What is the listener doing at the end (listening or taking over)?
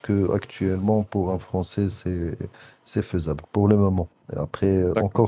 listening